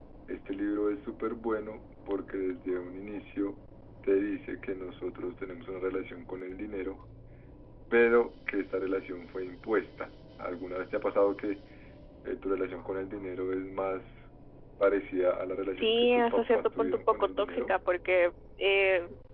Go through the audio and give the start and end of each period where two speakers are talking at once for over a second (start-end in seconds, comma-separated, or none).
15.8-17.7